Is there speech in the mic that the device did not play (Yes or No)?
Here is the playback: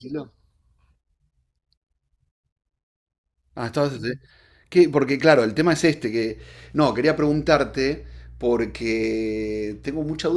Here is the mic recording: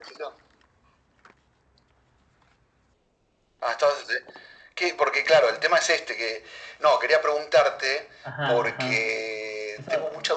Yes